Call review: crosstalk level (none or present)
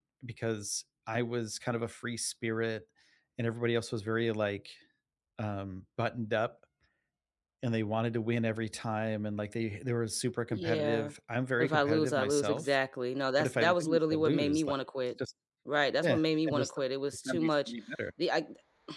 present